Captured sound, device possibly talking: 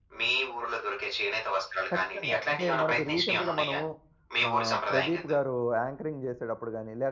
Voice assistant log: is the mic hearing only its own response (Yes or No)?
No